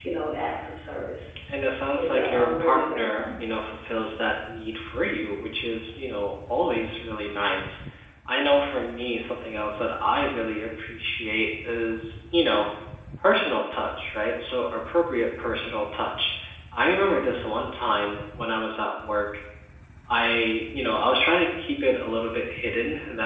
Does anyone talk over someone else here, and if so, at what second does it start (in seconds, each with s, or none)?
1.9 s